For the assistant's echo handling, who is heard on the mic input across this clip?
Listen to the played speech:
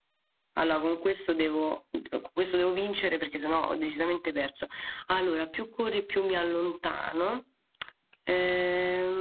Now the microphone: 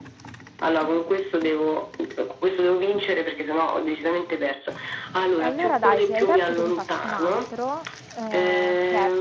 both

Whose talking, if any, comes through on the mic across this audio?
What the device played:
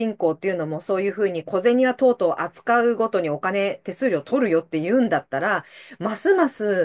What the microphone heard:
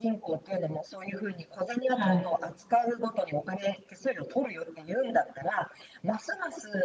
both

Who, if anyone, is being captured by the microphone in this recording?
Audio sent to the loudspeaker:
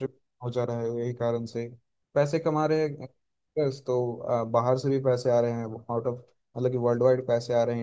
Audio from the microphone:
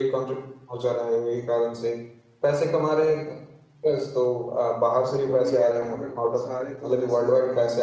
both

